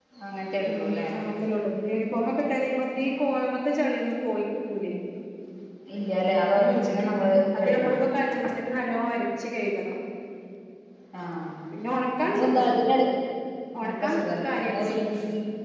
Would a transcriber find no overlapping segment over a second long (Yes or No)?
No